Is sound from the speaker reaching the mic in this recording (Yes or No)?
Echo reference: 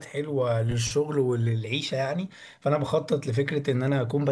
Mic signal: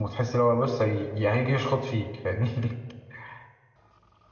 No